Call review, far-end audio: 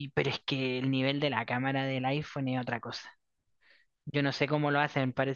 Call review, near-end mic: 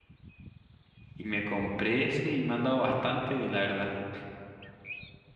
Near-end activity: present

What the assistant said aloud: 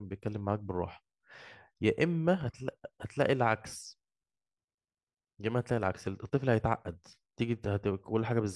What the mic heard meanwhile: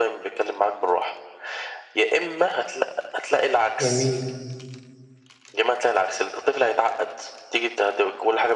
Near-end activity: present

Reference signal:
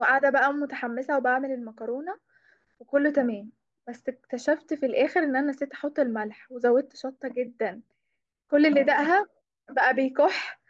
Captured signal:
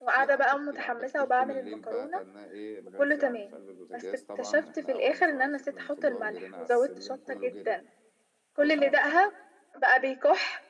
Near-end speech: present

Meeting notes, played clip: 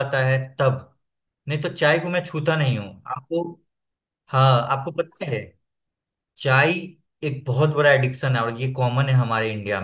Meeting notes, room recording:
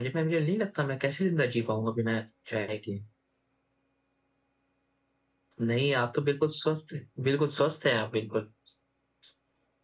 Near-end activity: present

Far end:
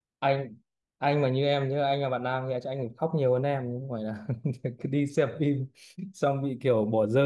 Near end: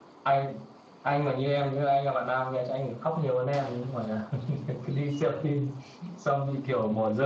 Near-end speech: none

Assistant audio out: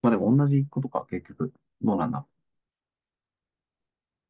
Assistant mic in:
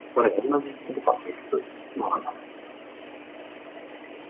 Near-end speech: none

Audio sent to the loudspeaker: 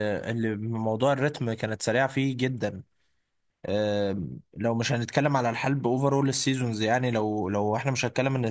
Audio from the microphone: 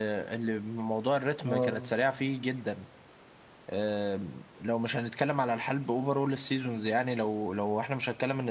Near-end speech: present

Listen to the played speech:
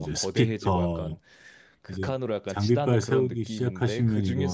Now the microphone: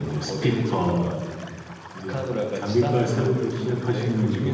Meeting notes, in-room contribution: none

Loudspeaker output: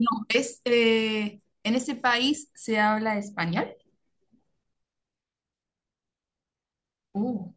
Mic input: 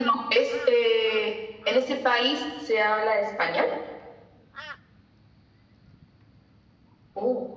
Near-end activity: none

